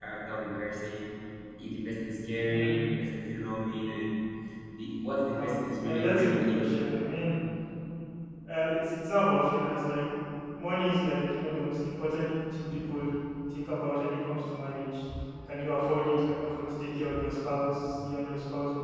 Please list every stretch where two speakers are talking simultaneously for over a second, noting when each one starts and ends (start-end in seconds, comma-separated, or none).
5.4-6.6